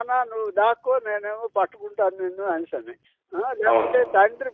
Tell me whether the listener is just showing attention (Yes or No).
Yes